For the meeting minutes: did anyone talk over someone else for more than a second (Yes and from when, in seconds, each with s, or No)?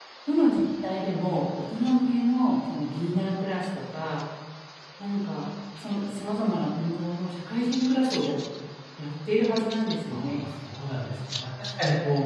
No